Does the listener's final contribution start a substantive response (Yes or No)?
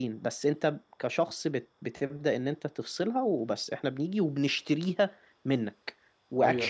No